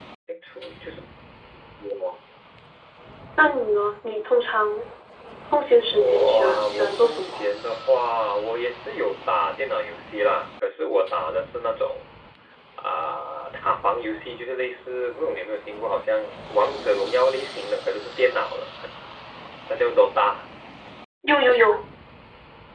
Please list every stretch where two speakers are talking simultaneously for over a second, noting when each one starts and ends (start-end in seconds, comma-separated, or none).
5.9-7.4